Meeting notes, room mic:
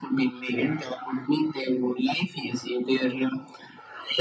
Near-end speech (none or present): none